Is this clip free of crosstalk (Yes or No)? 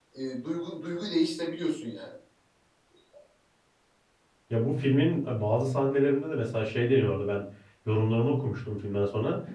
Yes